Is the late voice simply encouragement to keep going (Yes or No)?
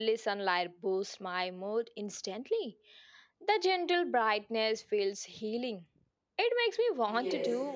No